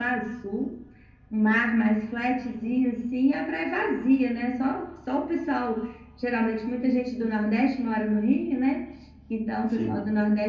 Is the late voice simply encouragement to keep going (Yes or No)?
Yes